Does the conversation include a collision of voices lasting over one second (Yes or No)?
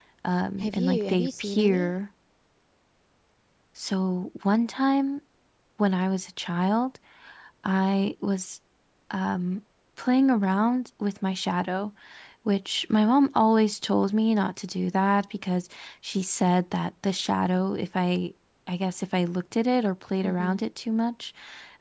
Yes